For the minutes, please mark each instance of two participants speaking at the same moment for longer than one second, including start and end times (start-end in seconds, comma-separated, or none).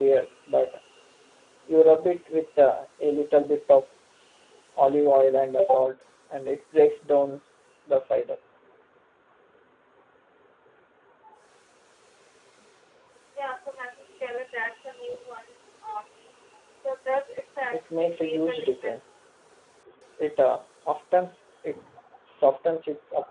17.7-19.1